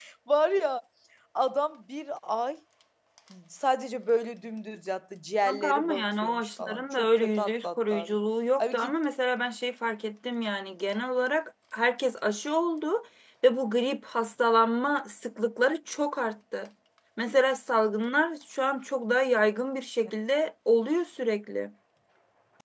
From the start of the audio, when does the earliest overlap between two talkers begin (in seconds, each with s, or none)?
5.5 s